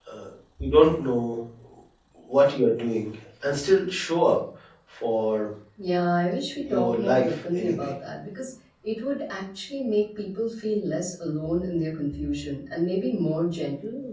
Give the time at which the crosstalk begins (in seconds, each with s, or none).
6.7 s